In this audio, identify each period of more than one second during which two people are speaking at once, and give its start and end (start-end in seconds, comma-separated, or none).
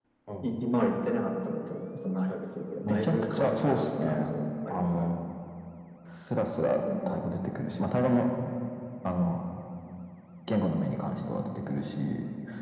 2.8-4.3